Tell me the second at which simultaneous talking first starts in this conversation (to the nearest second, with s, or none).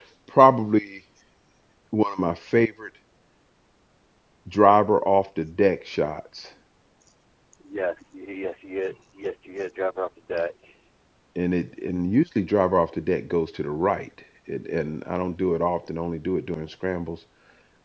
none